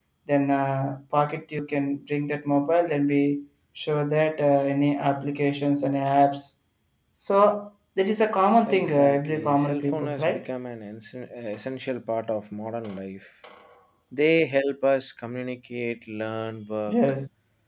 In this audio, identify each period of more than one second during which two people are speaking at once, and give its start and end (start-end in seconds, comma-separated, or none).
8.6-10.4